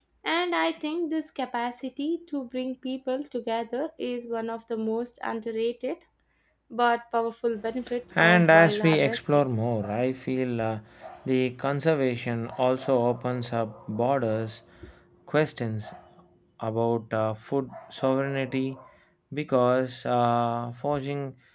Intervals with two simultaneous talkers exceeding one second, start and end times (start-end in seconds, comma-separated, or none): 8.2-9.4